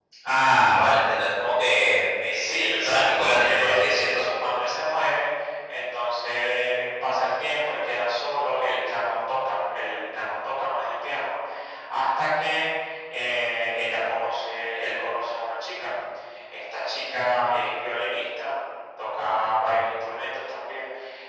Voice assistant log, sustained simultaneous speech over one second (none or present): present